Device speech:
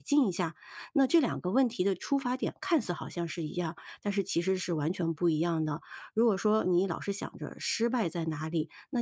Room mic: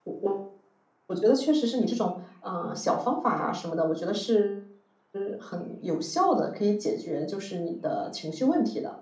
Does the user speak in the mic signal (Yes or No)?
Yes